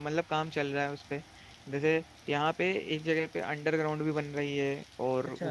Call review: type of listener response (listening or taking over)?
listening